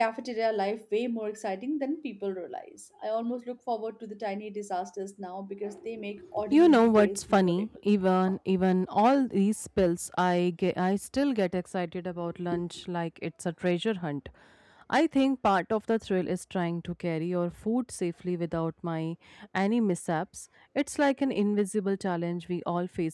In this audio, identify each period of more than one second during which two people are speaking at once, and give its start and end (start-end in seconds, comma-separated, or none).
6.4-7.6